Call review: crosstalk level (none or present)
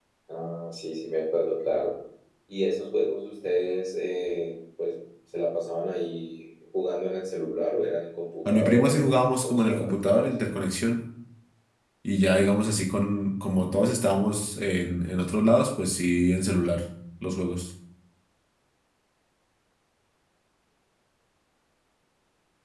present